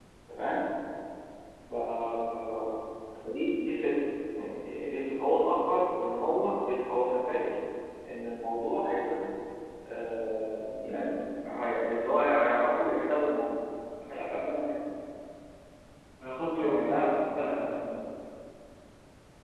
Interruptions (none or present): present